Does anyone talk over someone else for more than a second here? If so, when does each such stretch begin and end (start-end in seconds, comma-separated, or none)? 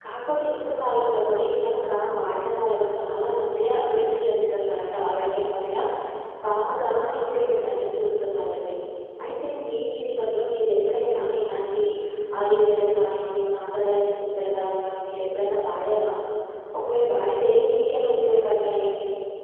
none